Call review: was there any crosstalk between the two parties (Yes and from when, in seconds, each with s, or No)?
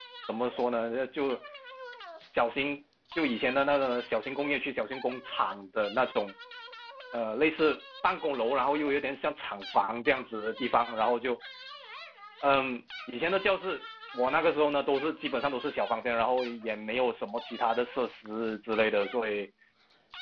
No